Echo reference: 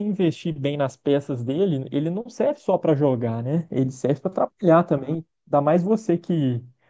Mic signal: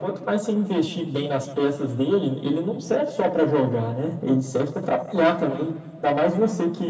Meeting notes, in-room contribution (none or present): none